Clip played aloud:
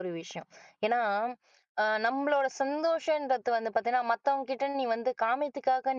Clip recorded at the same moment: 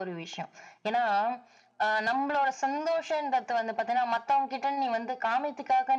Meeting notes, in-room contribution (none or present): none